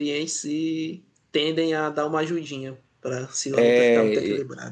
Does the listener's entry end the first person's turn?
Yes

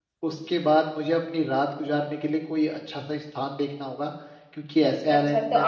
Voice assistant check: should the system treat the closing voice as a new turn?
Yes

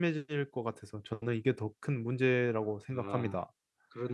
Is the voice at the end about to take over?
Yes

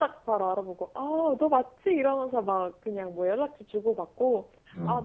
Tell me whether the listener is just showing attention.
Yes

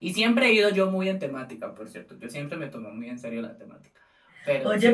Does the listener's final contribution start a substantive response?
Yes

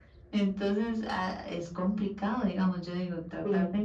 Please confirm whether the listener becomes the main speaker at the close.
No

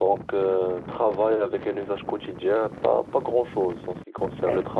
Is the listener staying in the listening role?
Yes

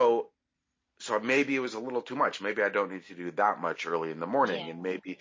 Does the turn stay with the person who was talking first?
Yes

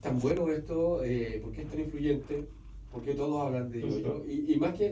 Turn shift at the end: No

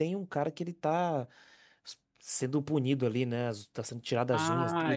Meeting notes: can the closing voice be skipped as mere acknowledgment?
No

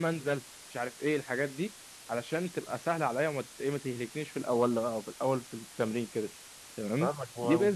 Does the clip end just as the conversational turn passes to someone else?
Yes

